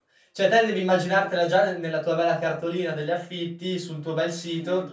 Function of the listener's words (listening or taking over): listening